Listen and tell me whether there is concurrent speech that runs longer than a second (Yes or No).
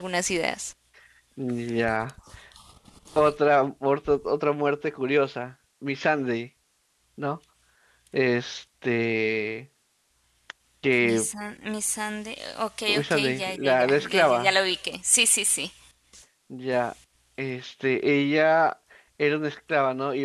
Yes